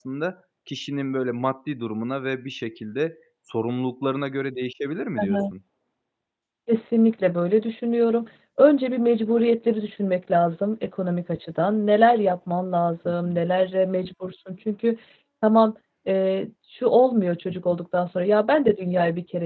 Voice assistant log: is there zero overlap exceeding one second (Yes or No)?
Yes